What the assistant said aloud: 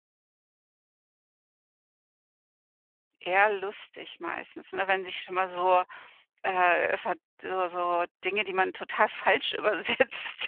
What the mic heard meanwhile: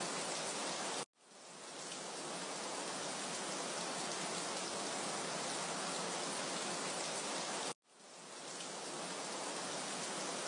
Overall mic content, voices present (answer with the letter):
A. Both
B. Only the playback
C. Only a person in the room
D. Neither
D